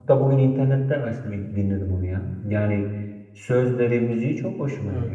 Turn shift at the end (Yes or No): Yes